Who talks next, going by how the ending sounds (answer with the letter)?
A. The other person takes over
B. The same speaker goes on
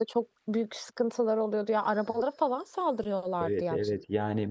A